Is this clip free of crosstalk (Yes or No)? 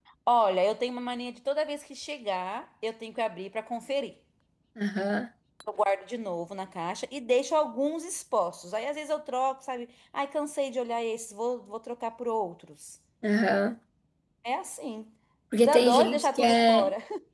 No